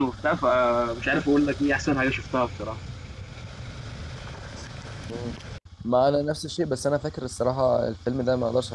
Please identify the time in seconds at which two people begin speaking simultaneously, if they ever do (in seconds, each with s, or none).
none